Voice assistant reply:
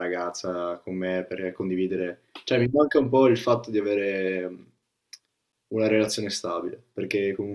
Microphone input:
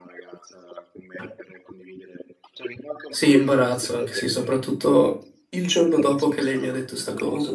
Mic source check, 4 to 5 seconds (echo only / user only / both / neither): both